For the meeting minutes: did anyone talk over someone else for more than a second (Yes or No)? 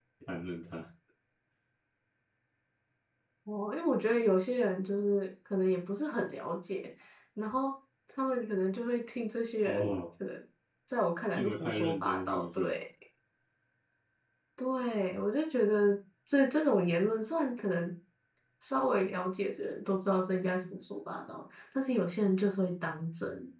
Yes